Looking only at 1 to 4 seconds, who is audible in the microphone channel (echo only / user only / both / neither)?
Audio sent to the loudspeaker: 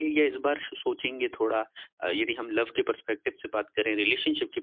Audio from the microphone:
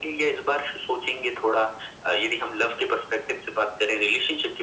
echo only